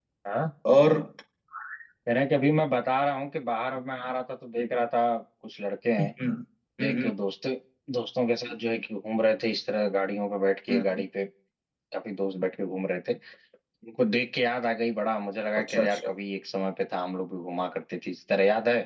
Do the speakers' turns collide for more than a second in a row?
No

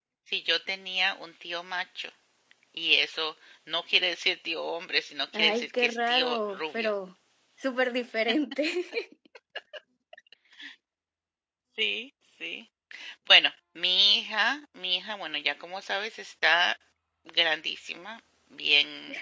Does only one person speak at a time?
No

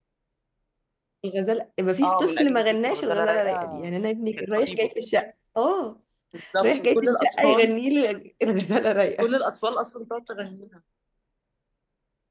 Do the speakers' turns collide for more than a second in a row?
Yes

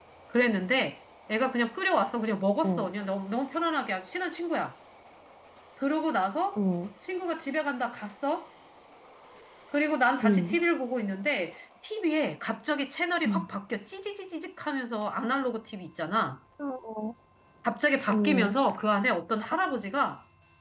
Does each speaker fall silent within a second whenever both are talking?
Yes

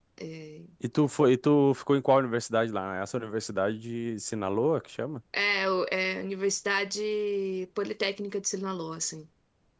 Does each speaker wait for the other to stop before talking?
Yes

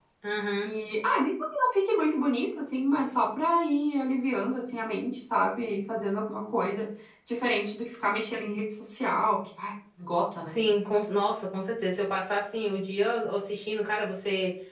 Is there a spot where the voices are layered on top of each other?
No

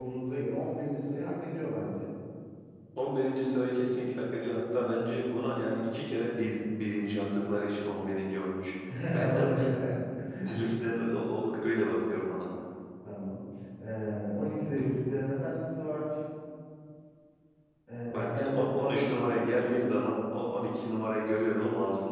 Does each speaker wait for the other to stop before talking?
No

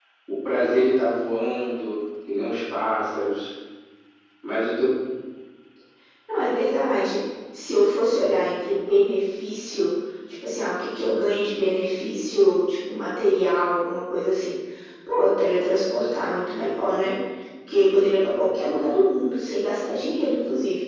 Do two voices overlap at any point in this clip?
No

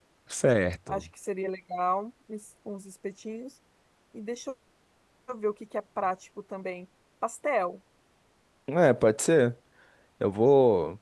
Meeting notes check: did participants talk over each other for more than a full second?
No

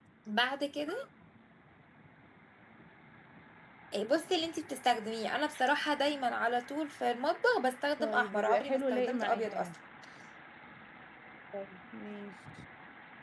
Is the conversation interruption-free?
No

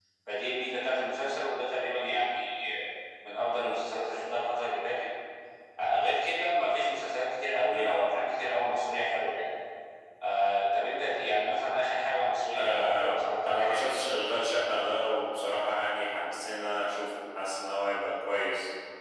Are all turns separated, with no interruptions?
No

